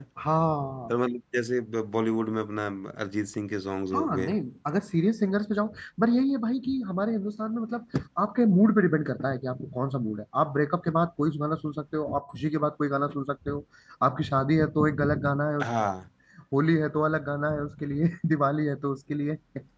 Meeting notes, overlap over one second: none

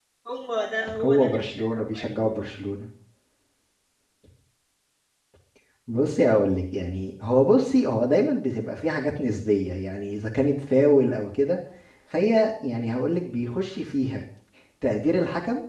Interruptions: present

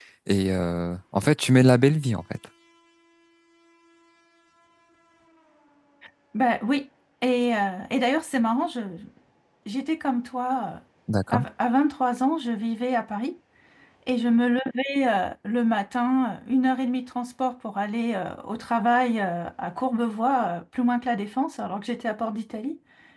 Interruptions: none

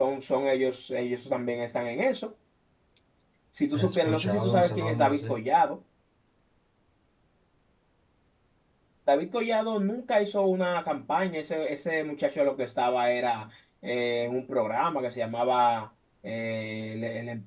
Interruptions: present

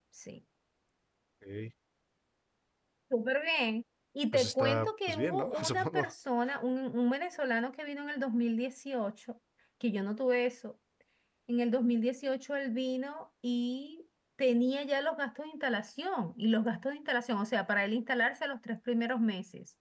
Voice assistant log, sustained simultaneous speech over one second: present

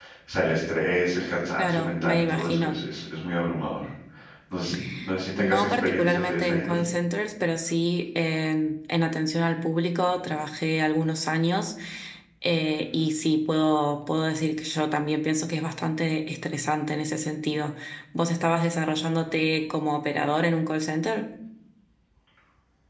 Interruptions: present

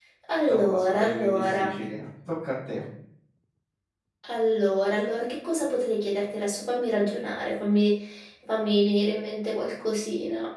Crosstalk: present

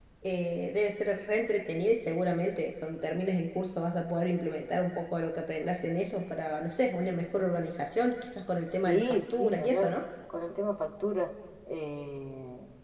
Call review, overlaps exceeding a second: present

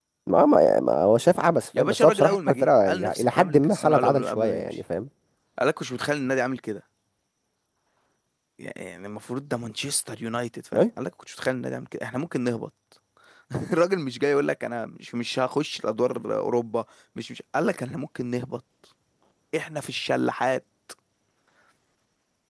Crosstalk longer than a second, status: present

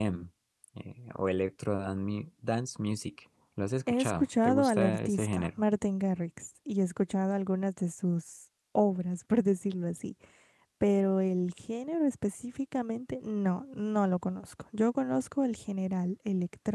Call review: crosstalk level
present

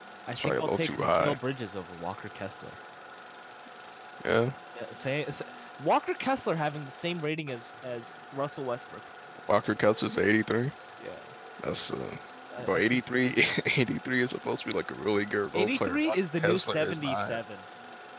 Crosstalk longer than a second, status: present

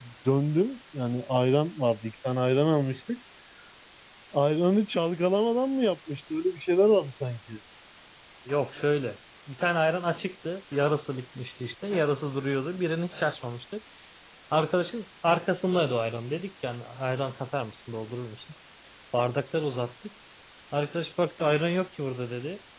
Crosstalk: none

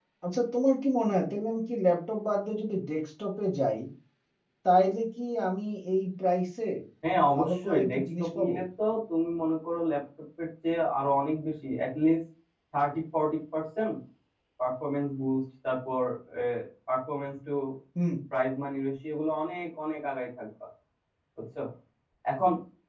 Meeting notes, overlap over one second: present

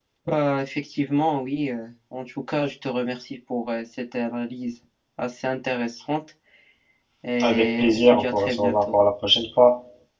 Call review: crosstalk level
present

